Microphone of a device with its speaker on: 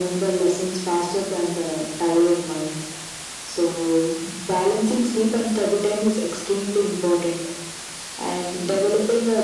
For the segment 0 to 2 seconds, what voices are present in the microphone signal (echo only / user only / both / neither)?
echo only